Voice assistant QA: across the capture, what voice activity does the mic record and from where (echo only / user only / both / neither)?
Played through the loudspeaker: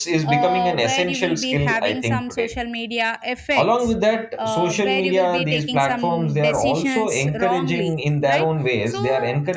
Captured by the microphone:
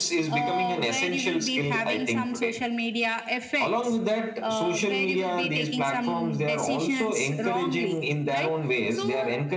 echo only